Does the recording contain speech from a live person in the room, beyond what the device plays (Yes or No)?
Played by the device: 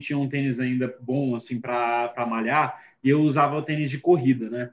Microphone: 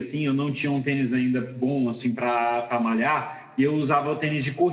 No